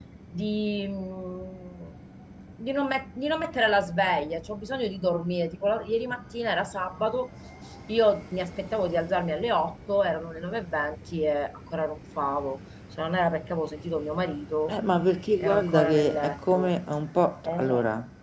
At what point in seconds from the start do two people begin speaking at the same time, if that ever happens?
15.4 s

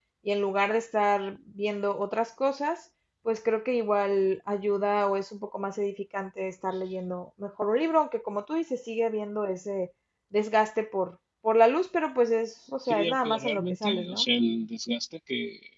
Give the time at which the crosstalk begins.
12.8 s

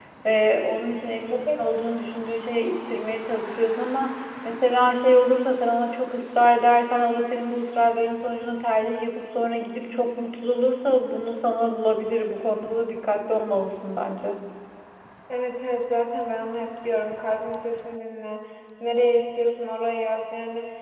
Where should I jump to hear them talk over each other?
none

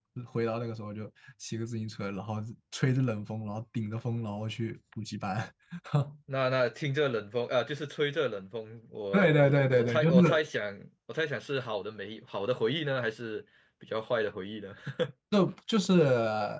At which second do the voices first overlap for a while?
9.1 s

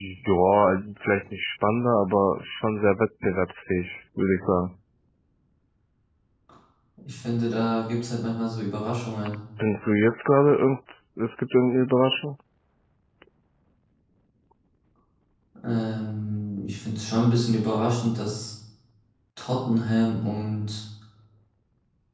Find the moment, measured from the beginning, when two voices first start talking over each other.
none

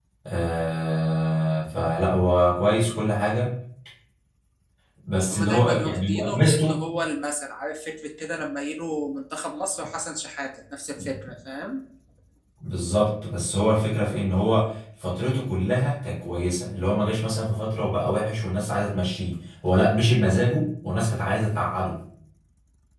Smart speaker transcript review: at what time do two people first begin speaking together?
5.3 s

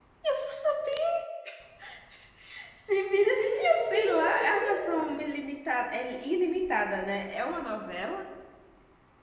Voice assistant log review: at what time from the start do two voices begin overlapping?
3.1 s

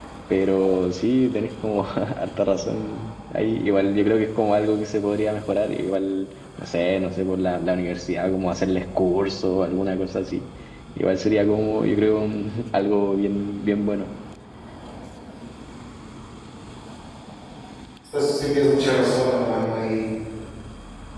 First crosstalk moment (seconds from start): none

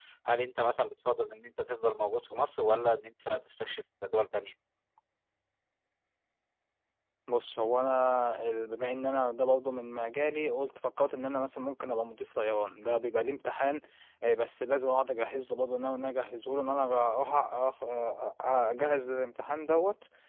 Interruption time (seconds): none

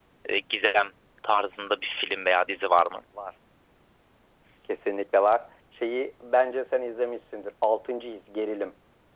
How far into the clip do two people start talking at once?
none

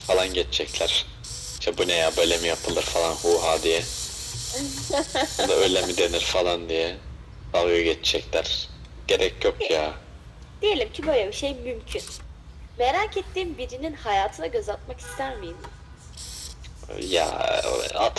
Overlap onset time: none

